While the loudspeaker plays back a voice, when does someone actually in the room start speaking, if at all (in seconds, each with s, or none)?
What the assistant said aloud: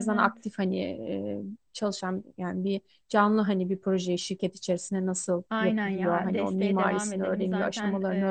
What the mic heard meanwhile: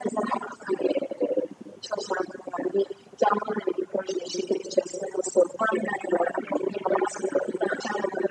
none